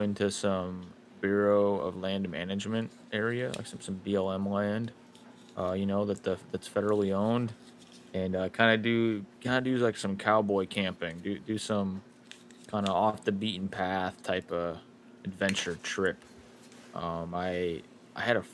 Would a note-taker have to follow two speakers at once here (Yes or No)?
No